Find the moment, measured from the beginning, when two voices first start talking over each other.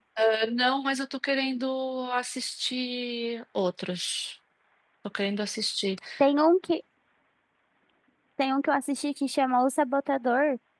none

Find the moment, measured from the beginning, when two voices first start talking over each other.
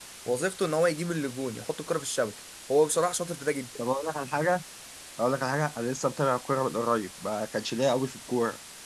none

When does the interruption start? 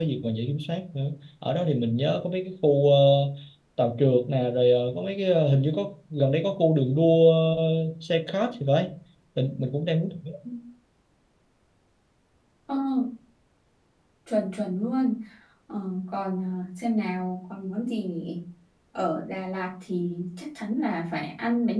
none

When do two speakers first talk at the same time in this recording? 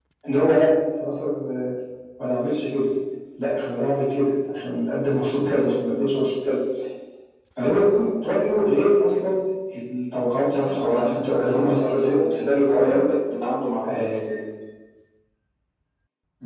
10.6 s

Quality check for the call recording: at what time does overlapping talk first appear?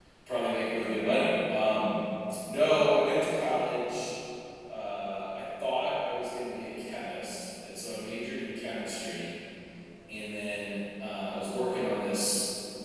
none

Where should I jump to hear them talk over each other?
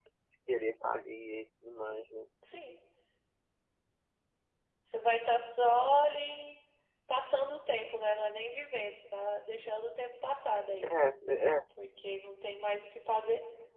none

